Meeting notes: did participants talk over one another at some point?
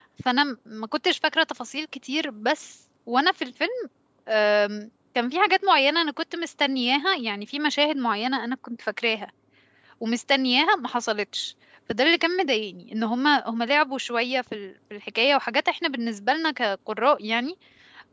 No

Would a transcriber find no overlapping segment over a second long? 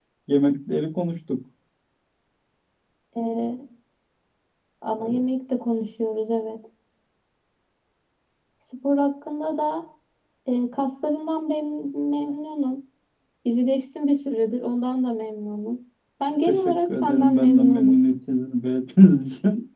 No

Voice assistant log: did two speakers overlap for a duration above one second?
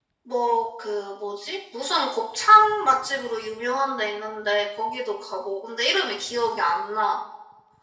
No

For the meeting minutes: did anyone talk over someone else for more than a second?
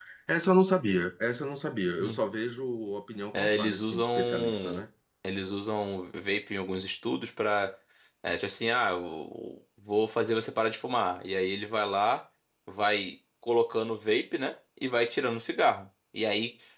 Yes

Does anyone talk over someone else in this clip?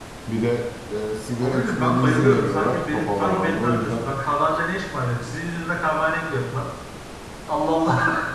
Yes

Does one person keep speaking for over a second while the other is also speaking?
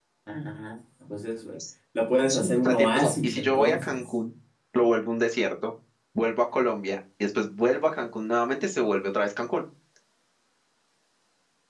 Yes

